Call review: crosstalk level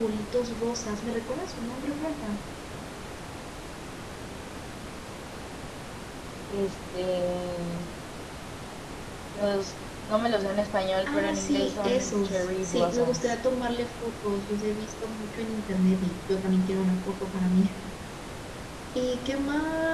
present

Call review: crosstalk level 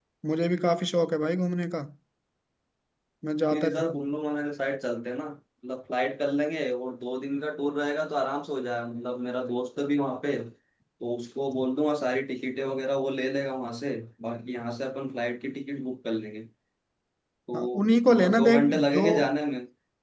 present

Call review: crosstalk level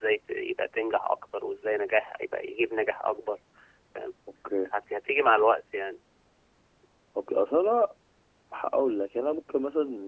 none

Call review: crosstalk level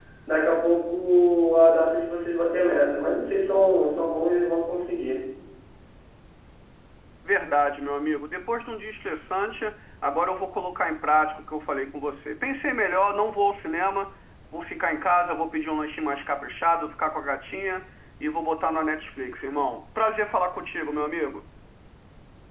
none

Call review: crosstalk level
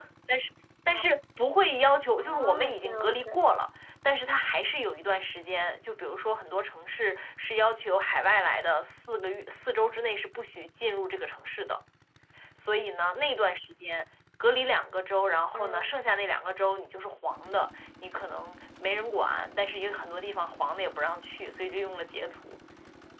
present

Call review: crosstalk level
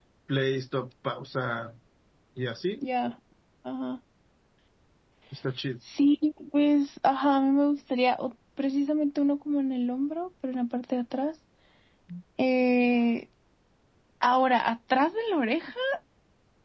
none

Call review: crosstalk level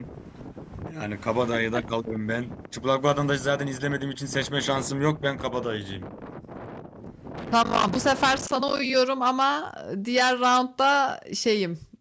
none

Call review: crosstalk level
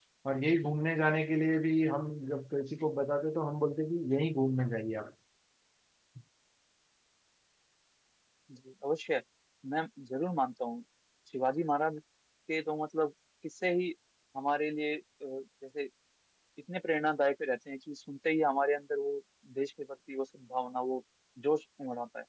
none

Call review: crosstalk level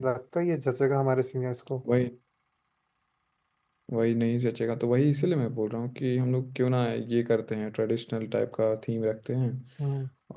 none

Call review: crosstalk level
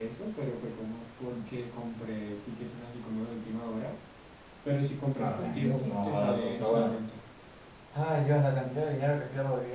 present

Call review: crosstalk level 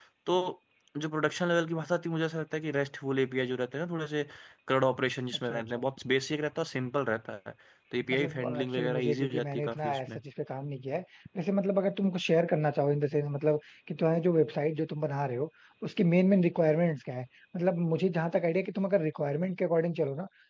present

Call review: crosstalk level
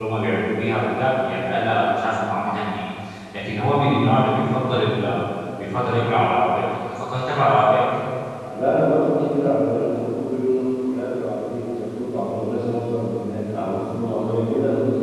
none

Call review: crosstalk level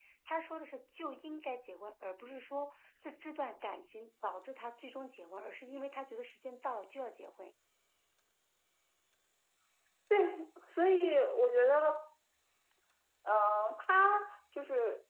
none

